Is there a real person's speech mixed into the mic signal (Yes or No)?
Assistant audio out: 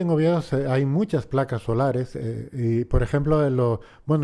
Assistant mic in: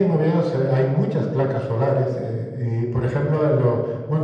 No